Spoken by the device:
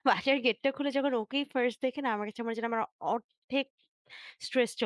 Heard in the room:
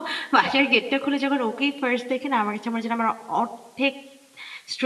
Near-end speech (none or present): none